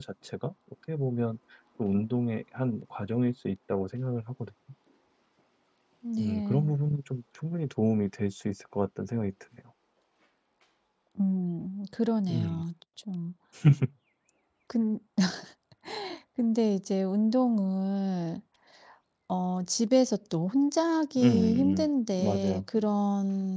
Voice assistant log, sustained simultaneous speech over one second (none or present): present